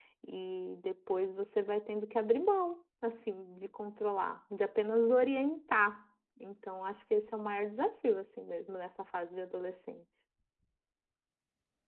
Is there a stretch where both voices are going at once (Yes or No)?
No